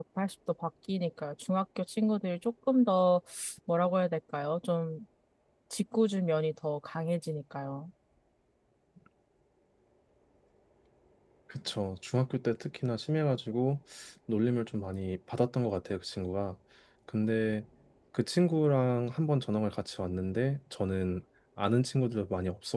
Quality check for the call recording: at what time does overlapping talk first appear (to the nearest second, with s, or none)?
none